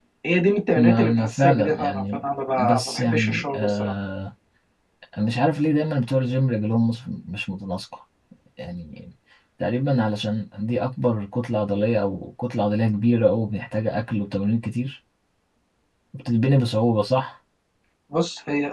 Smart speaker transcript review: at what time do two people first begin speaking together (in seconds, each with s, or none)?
0.8 s